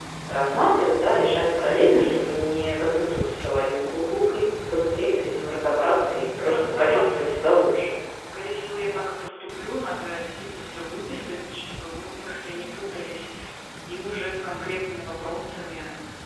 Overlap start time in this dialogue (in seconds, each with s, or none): 6.3 s